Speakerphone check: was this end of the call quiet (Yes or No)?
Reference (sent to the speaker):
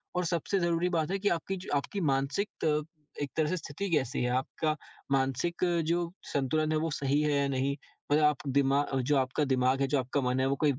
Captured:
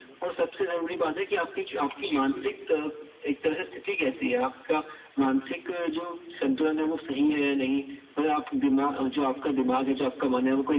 No